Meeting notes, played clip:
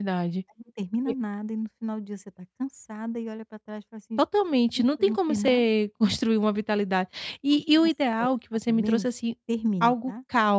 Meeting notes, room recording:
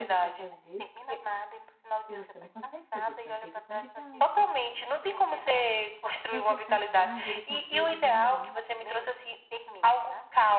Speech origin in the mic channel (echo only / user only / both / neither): both